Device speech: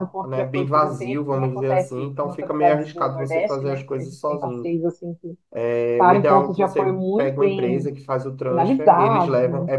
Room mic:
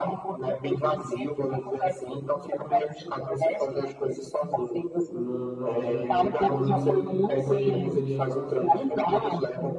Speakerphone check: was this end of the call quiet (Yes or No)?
No